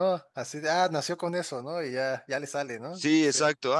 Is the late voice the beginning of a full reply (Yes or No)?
Yes